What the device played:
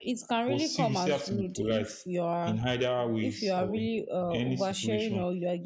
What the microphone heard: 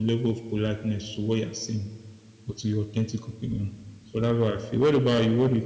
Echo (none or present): none